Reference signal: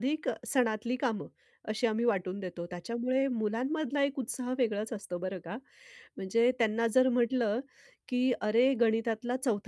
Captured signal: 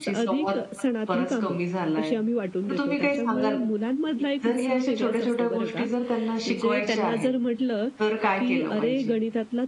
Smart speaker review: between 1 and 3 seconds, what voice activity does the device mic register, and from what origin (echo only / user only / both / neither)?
both